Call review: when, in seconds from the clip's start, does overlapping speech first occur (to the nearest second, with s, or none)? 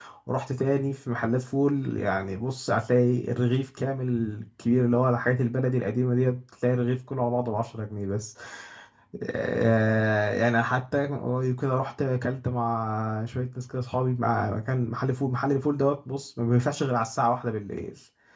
none